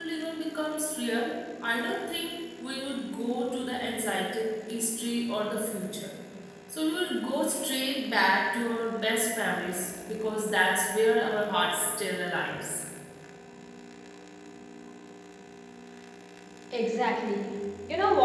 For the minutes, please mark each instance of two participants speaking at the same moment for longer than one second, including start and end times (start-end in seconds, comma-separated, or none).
none